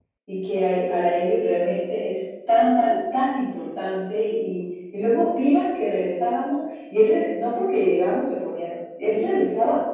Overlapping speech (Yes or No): No